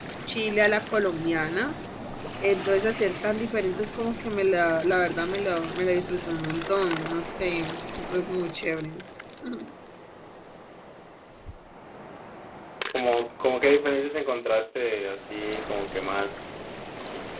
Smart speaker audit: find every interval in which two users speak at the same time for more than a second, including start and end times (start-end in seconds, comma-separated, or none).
none